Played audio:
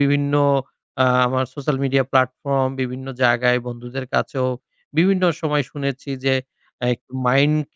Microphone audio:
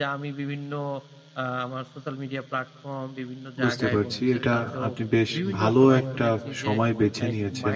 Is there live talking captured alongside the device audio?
Yes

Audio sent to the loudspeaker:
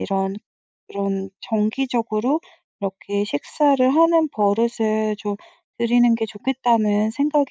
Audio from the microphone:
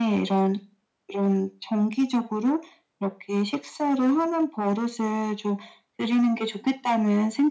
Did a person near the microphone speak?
No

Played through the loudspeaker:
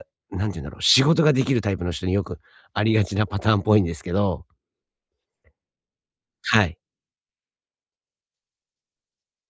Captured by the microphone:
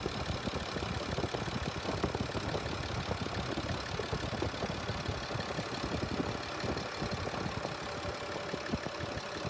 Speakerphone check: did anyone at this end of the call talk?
No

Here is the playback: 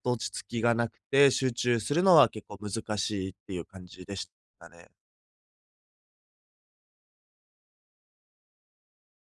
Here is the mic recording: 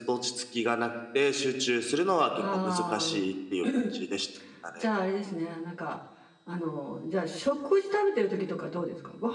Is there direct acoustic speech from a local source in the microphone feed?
Yes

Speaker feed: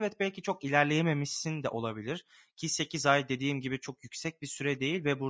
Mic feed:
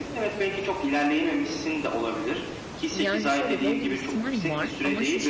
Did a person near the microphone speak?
Yes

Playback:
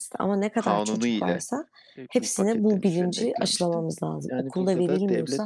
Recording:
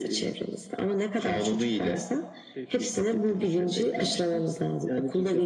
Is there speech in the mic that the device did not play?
No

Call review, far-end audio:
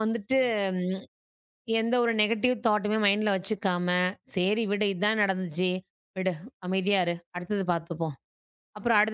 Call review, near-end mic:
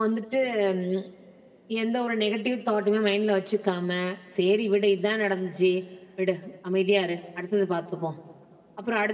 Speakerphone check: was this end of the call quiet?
Yes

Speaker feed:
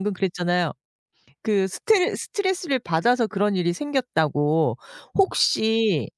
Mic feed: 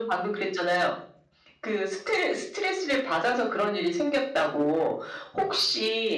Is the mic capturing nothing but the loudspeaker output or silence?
Yes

